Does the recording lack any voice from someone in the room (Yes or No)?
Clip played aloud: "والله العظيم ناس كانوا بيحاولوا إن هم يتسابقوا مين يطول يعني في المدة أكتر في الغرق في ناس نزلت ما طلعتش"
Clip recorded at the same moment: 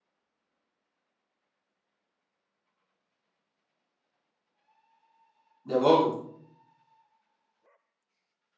No